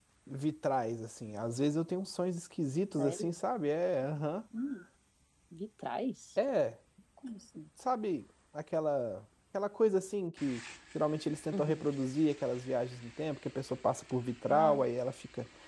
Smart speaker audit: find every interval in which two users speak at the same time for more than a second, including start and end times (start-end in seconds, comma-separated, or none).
none